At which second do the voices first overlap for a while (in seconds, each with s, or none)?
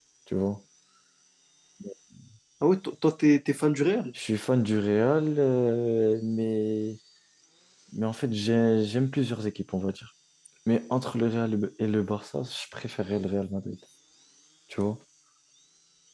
none